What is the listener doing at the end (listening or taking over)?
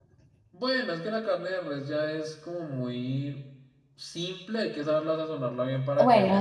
taking over